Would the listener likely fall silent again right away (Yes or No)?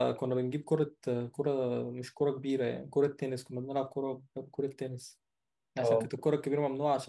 Yes